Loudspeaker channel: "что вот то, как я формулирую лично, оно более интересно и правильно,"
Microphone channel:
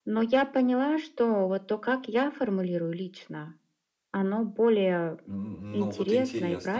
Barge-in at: 5 s

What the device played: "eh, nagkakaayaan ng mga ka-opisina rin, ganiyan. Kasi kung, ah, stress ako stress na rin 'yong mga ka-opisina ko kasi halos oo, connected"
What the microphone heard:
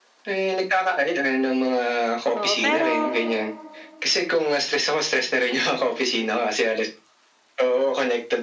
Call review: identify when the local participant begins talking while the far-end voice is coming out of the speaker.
2 s

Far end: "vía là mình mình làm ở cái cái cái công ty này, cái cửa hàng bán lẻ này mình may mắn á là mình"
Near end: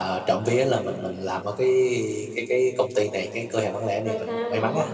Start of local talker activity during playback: 4 s

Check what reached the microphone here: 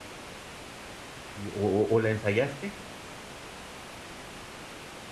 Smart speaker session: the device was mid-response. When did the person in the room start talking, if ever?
1 s

